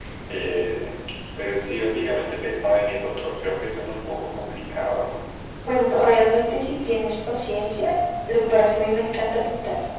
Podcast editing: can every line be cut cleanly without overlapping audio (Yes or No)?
Yes